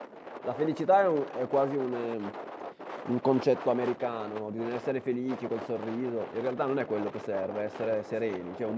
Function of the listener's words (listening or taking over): listening